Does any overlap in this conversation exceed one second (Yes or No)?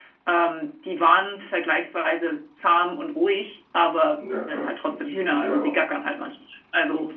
Yes